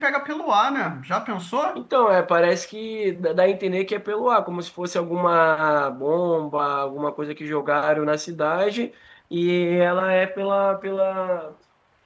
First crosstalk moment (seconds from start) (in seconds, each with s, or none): none